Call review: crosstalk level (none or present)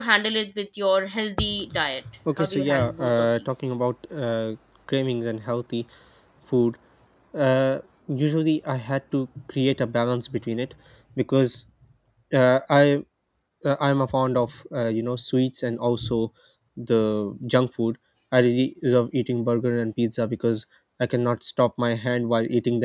present